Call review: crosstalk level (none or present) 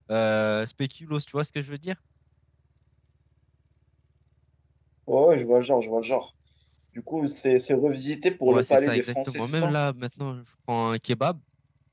present